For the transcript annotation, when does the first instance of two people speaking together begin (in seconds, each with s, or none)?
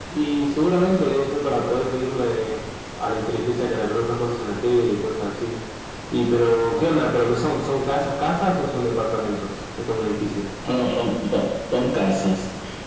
none